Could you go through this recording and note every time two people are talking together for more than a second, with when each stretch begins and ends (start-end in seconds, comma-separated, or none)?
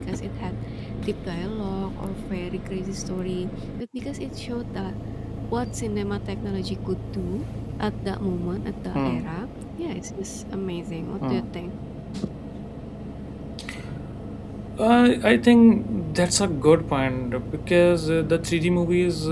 none